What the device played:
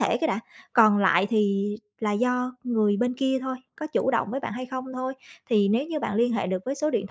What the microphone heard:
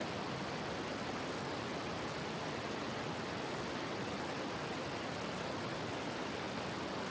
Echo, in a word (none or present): none